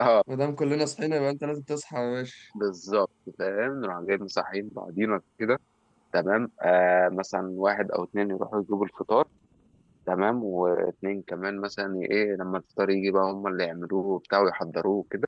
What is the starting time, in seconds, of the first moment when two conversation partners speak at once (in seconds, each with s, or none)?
none